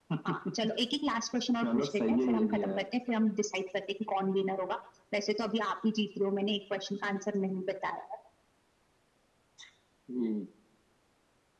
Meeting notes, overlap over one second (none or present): present